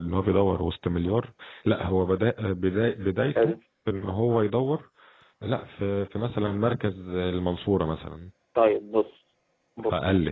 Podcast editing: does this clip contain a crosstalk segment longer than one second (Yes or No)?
No